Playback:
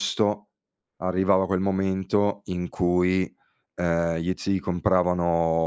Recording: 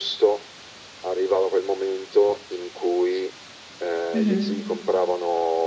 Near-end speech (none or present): present